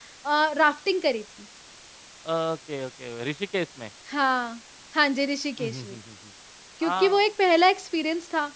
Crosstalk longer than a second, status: none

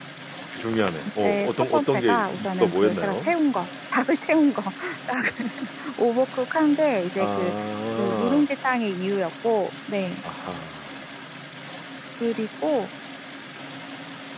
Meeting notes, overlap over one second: present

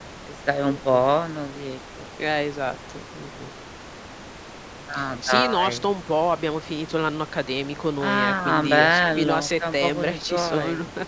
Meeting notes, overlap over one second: present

